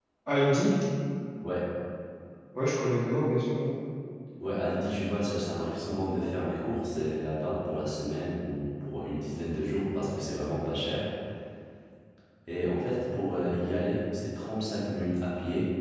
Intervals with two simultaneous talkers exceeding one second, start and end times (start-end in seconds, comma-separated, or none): none